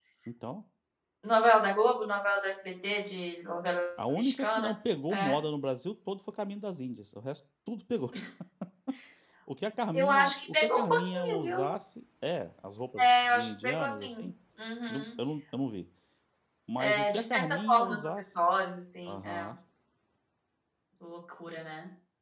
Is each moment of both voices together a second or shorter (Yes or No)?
No